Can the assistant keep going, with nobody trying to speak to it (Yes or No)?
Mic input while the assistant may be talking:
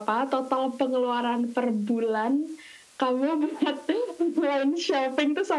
Yes